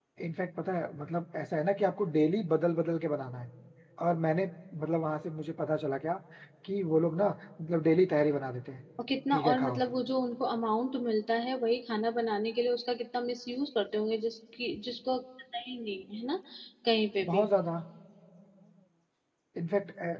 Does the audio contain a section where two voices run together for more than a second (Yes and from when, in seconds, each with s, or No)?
No